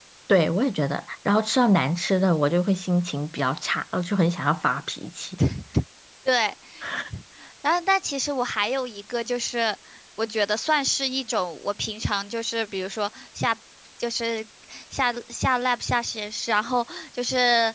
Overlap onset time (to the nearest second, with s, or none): none